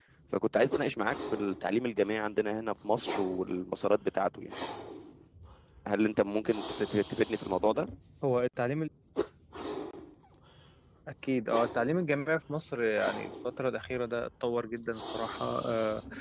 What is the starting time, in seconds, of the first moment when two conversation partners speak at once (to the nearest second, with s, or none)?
none